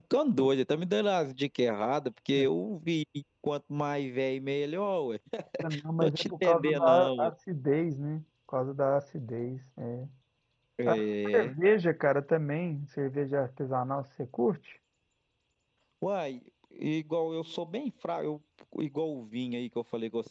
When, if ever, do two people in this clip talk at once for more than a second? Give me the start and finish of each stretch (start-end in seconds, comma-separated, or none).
6.0-7.3